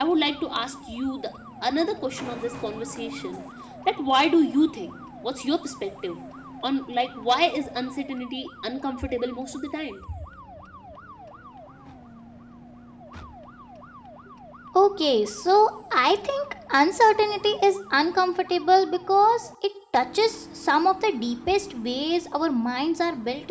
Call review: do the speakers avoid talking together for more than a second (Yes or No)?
Yes